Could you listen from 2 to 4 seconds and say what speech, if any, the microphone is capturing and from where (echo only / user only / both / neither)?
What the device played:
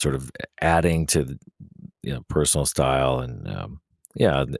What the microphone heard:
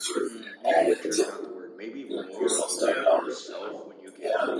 both